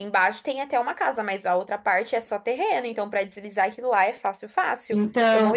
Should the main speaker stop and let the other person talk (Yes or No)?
Yes